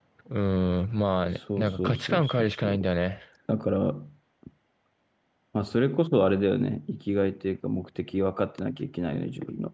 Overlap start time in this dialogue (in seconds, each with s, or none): 1.6 s